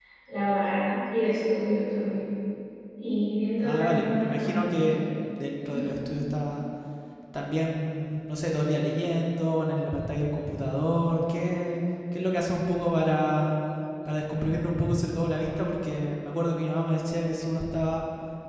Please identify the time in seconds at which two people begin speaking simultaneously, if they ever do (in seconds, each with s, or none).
3.6 s